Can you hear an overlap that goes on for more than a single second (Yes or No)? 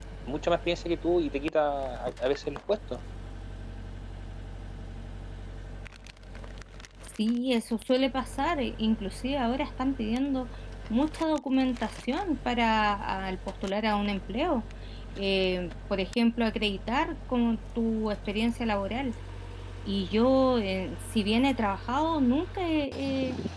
No